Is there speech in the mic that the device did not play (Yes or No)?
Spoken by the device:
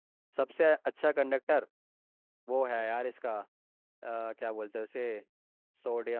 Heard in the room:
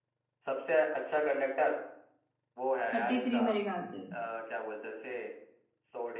Yes